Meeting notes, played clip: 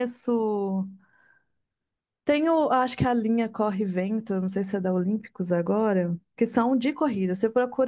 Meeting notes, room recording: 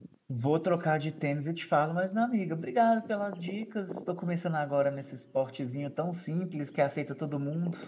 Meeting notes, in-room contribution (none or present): present